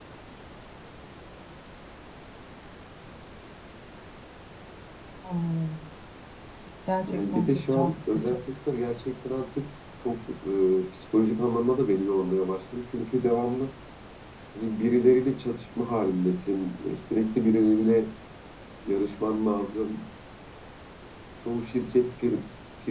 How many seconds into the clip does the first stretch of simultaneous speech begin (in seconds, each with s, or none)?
7.0 s